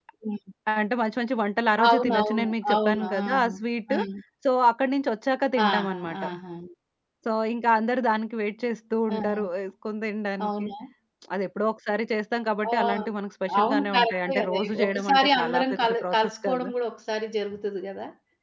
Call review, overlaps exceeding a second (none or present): present